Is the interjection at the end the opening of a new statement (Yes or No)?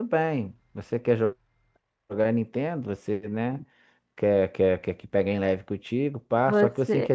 No